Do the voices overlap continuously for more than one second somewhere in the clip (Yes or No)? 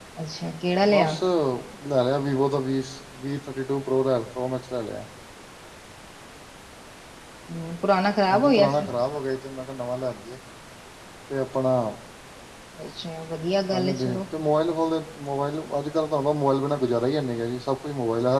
No